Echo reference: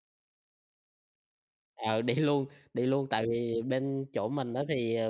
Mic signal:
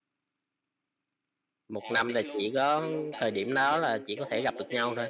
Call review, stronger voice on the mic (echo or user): user